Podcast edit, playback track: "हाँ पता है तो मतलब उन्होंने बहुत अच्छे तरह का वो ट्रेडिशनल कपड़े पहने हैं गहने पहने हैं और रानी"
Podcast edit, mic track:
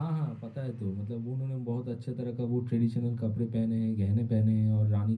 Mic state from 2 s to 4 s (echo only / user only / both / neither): echo only